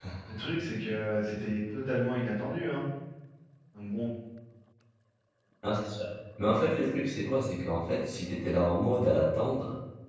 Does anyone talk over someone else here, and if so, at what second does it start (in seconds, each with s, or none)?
none